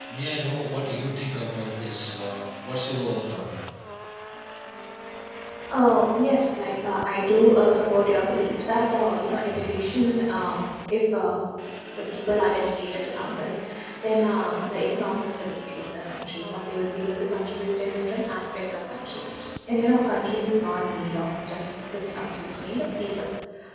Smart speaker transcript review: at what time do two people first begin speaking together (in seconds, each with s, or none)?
none